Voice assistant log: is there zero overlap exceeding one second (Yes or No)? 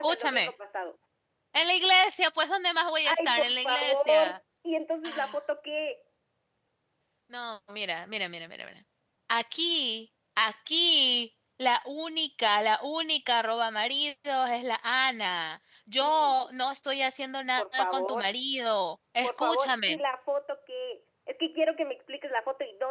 No